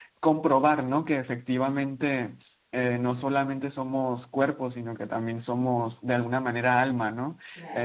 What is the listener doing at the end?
taking over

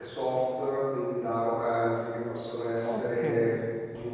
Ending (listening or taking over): listening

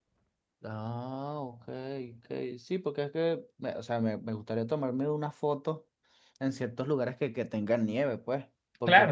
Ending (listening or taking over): taking over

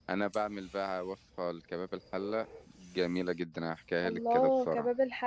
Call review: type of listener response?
taking over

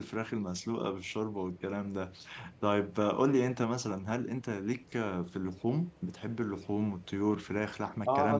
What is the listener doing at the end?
taking over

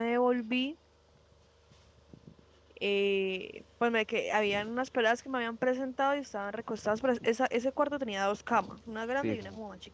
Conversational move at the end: listening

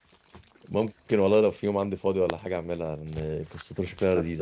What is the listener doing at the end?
listening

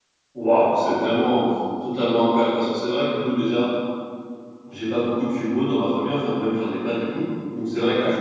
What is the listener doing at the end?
listening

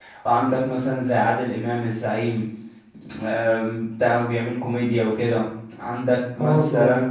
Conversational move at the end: listening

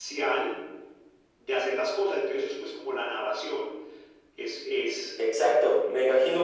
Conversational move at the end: taking over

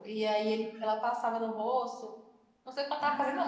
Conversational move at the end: listening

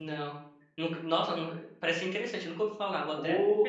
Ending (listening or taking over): taking over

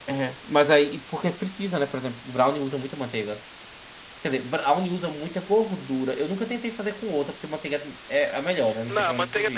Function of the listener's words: taking over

